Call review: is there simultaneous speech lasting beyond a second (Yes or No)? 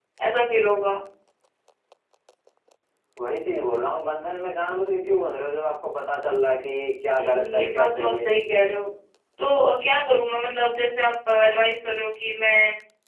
Yes